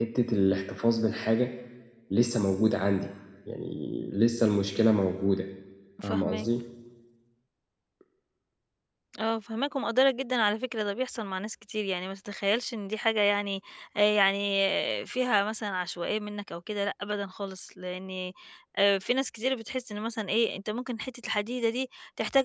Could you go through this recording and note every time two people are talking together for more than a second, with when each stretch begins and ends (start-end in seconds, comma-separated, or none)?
none